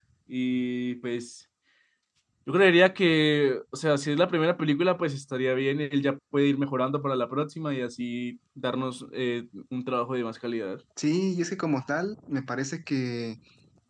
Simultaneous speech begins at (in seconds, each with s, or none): none